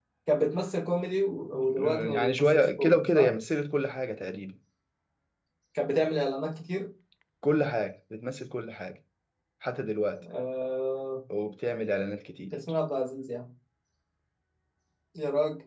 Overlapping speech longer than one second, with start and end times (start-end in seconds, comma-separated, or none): 1.5-3.3